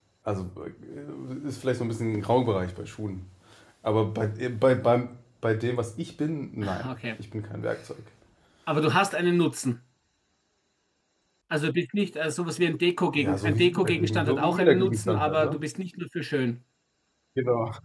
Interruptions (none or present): present